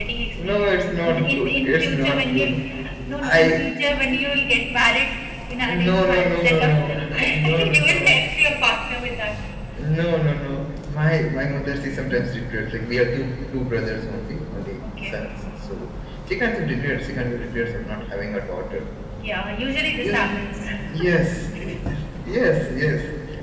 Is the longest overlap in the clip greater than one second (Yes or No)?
Yes